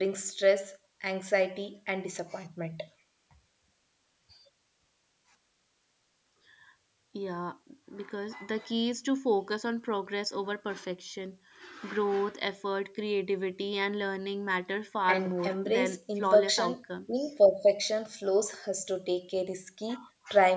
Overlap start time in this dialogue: 15.1 s

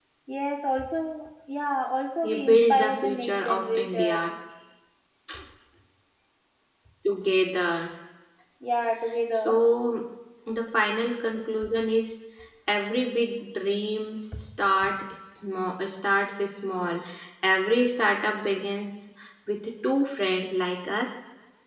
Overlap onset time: 2.2 s

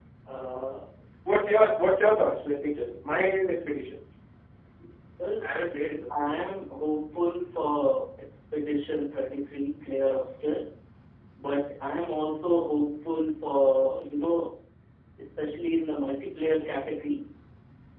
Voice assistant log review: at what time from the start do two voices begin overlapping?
none

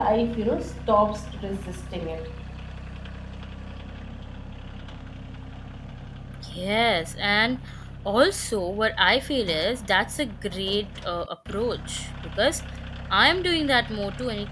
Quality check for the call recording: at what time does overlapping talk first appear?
none

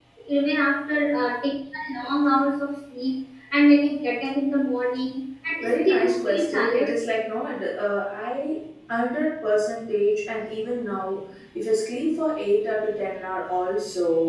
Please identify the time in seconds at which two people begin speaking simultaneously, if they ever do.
5.6 s

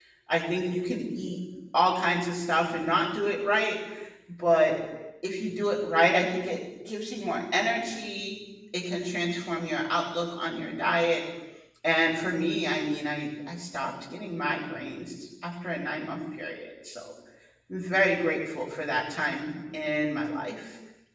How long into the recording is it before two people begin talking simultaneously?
none

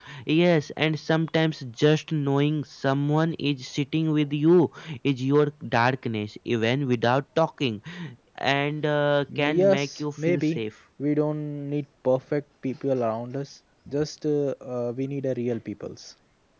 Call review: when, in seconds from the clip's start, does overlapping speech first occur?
9.3 s

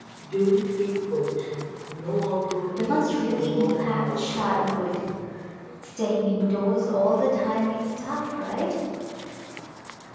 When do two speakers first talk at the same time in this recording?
2.8 s

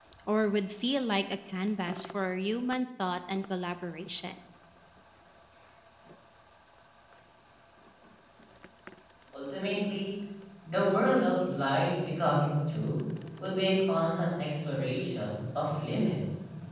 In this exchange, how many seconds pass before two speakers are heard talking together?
none

